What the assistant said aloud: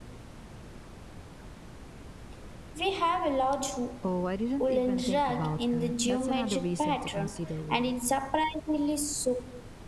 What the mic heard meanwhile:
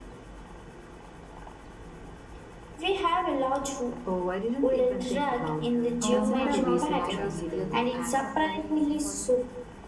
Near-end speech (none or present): present